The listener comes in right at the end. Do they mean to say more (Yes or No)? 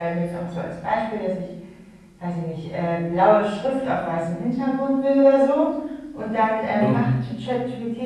No